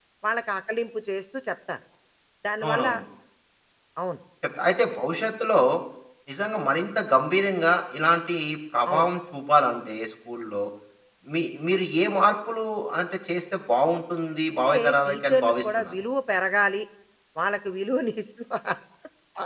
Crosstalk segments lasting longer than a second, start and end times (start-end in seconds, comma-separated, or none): 14.6-15.9